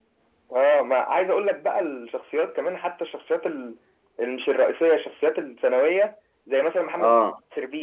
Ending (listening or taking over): listening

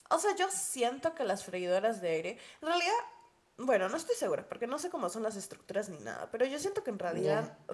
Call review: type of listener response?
listening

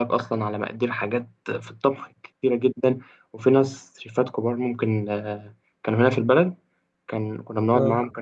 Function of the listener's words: listening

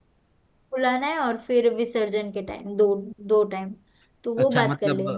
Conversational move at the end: taking over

